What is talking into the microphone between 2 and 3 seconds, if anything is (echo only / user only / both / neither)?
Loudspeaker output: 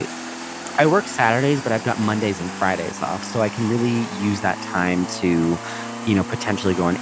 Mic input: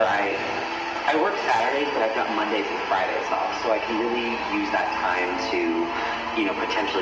echo only